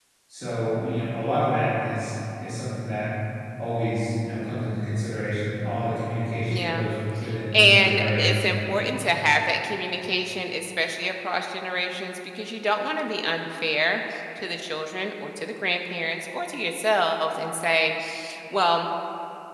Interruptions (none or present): present